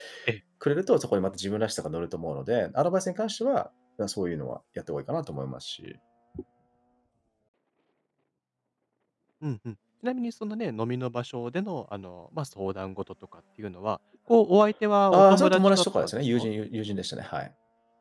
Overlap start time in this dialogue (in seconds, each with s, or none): 15.1 s